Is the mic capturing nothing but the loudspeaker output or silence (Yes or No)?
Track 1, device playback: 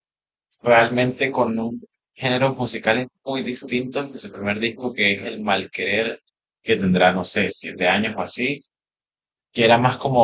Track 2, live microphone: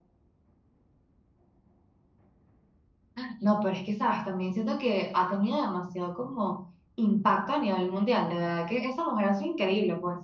No